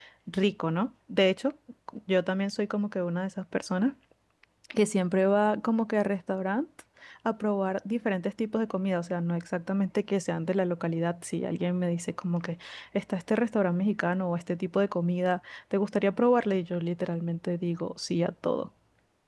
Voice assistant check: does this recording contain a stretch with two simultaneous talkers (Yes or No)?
No